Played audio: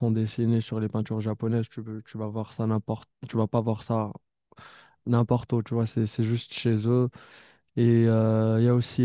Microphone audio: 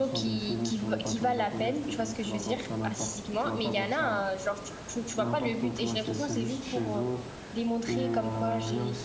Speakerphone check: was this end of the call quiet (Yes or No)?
No